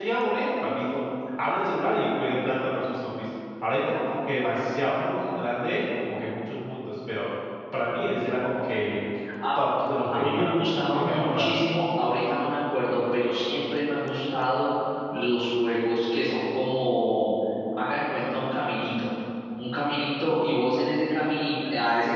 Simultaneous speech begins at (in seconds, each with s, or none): 10.1 s